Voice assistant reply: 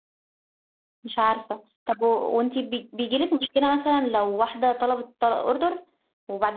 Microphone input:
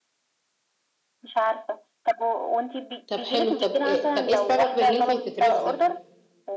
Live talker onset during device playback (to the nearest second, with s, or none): 3 s